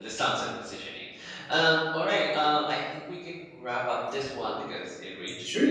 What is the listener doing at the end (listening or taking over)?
taking over